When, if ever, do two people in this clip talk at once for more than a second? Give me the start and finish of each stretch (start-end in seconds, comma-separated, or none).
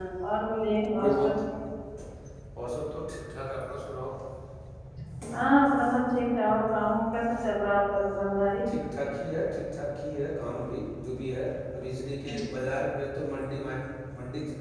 none